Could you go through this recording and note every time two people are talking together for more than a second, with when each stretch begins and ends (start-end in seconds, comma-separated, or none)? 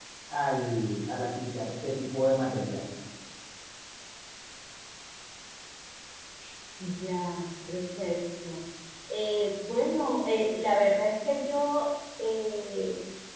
none